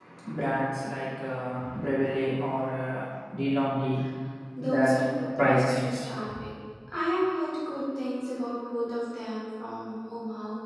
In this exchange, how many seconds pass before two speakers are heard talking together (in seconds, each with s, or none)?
4.6 s